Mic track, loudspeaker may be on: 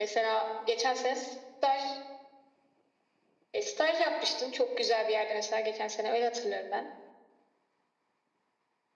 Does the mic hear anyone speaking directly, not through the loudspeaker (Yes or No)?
No